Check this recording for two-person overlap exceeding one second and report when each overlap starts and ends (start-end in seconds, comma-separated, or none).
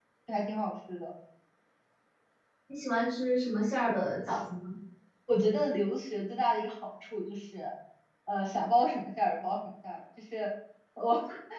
none